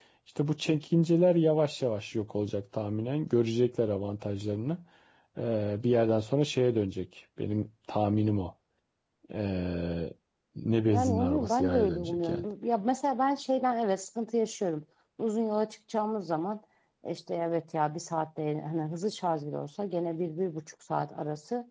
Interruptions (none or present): present